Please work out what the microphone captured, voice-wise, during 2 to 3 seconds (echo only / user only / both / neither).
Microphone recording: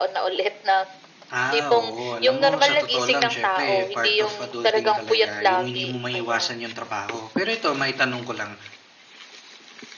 both